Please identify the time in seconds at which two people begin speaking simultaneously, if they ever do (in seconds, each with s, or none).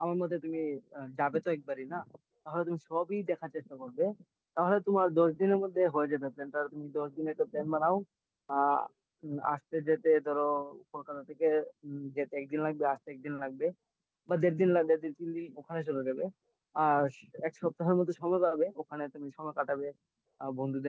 none